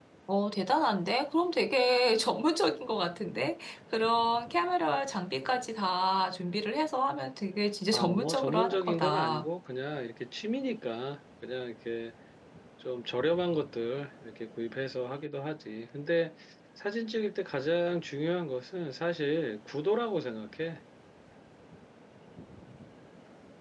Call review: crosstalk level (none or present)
present